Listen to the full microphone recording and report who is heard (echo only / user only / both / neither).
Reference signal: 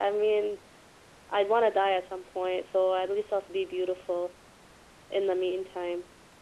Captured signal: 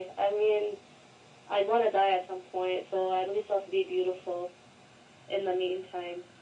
echo only